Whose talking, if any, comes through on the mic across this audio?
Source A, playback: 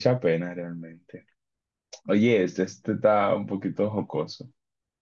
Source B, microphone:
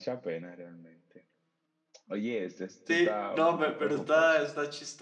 both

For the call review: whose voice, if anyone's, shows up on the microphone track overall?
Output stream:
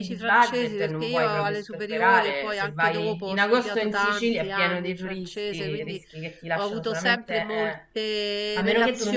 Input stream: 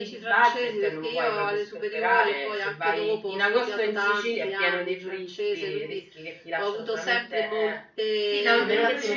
both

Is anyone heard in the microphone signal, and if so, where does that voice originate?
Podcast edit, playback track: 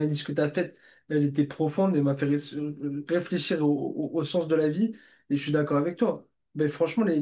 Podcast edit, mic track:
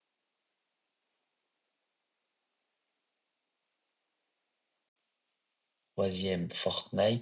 user only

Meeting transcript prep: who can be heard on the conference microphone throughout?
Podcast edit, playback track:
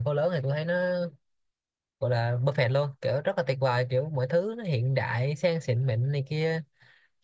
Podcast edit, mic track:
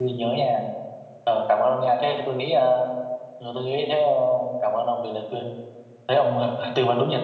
user only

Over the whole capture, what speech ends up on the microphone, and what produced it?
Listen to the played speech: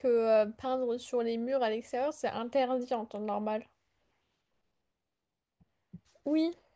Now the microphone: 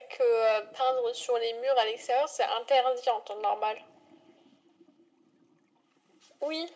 echo only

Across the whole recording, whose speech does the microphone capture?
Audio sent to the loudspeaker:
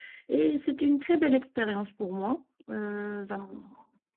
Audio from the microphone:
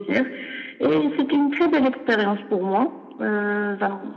echo only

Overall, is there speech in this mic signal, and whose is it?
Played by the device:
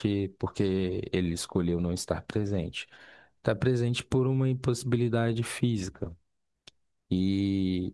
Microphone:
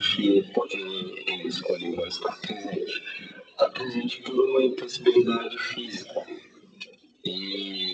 echo only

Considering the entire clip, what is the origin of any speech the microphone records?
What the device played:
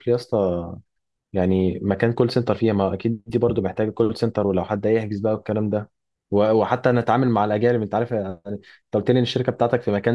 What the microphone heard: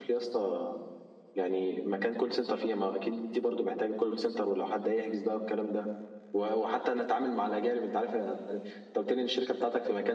echo only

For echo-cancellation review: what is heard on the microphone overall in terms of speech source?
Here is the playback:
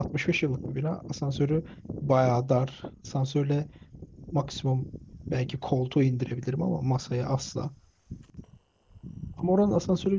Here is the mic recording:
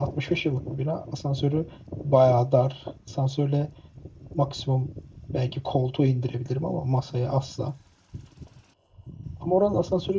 echo only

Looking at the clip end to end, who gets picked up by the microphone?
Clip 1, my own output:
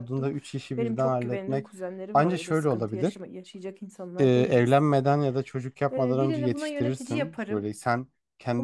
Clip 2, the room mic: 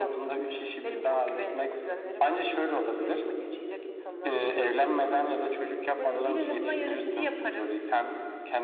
echo only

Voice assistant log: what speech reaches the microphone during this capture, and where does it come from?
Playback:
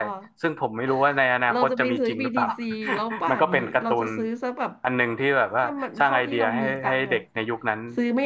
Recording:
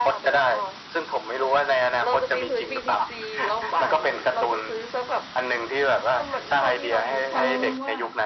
both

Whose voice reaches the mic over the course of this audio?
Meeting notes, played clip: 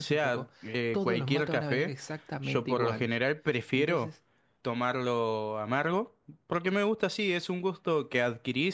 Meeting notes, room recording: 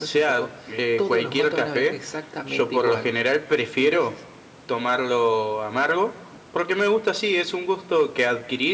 echo only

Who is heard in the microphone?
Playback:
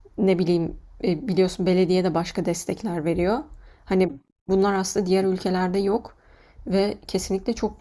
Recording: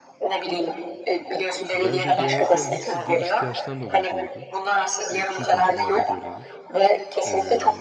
both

